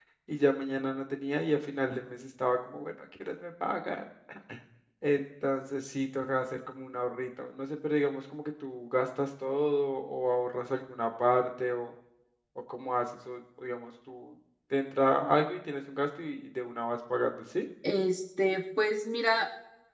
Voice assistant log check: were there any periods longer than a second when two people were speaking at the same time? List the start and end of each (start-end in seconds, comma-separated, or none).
none